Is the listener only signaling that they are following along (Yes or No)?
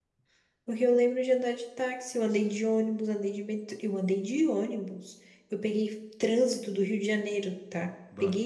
Yes